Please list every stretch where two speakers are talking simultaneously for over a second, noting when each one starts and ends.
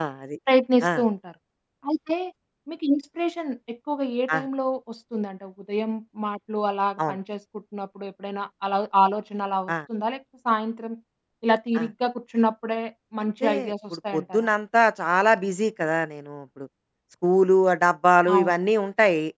13.2-14.5

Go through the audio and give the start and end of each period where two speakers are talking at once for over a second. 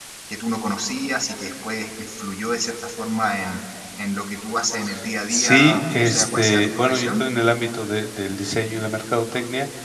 5.3-7.2

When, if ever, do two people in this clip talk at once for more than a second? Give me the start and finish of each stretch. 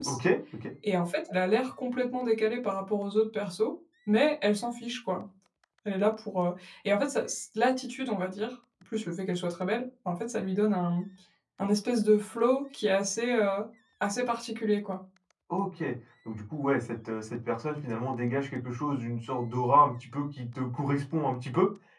none

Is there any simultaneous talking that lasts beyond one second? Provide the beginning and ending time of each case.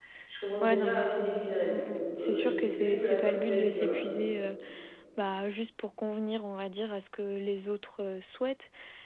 0.6-4.0

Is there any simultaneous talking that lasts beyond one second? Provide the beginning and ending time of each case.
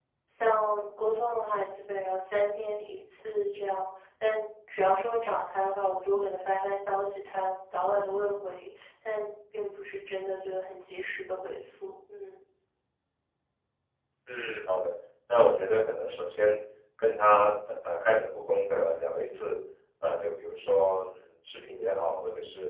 none

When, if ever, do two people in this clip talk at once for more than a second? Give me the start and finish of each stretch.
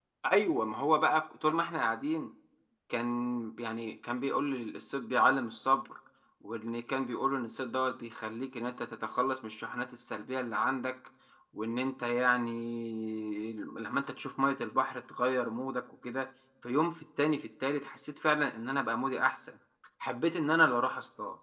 none

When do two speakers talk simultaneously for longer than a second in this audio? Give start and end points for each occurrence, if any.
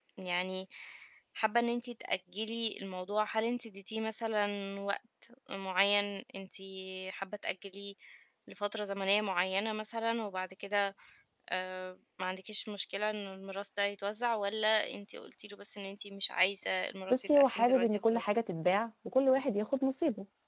17.1-18.3

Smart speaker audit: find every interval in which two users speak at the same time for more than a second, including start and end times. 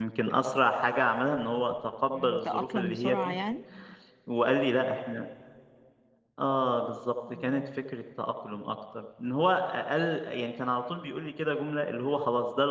2.1-3.4

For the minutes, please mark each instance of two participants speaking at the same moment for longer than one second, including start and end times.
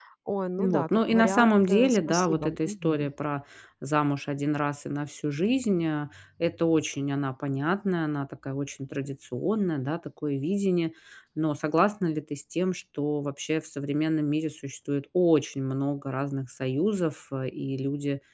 0.6-3.1

